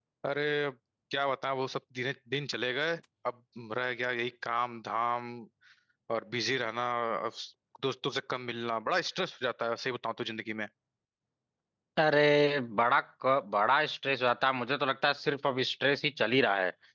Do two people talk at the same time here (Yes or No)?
No